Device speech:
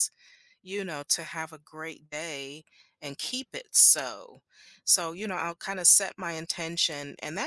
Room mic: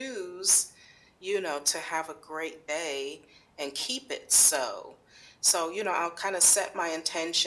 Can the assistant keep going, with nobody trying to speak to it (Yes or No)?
Yes